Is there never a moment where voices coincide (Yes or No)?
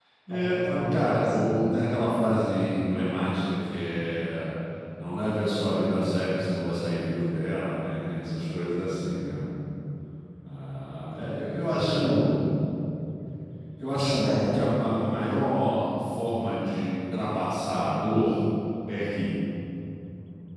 No